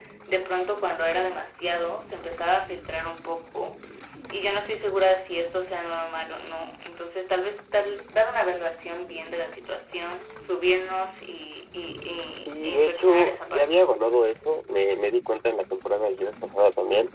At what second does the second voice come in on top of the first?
12.5 s

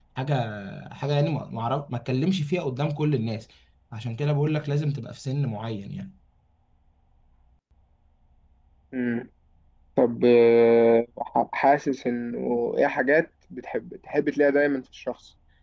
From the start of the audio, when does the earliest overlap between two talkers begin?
none

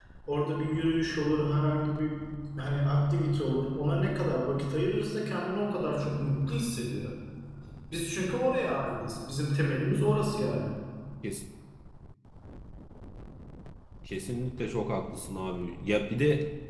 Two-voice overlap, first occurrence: none

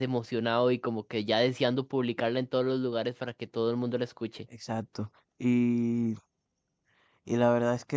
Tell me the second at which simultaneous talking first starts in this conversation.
none

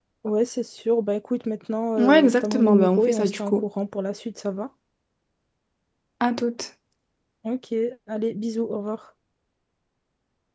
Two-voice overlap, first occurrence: 2.0 s

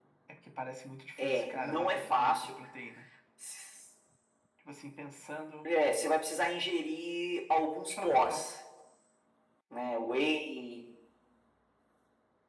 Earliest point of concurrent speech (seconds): 1.2 s

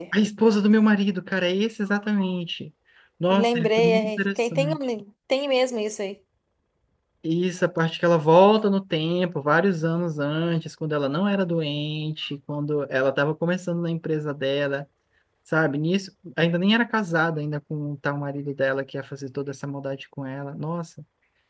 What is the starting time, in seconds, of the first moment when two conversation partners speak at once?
3.3 s

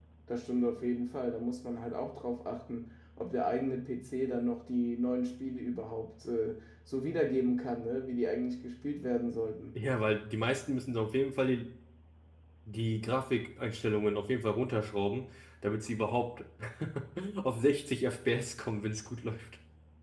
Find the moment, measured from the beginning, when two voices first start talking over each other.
none

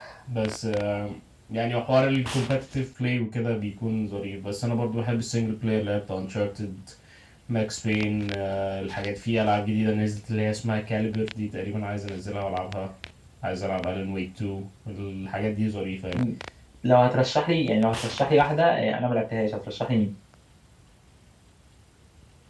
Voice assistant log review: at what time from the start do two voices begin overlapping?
none

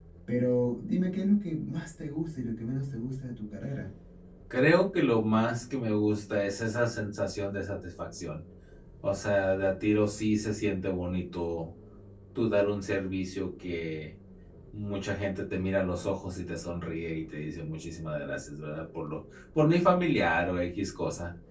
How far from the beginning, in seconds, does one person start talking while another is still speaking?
none

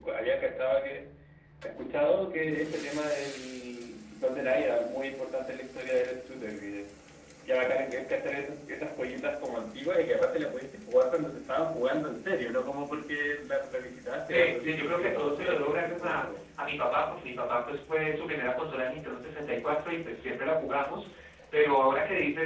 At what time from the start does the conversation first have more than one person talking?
14.3 s

